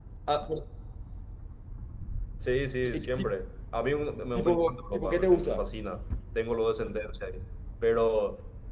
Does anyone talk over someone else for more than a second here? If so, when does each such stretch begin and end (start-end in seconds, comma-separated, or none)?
4.3-5.6